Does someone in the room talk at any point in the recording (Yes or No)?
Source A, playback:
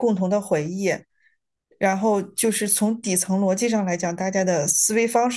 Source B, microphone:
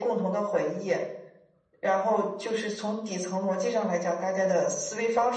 No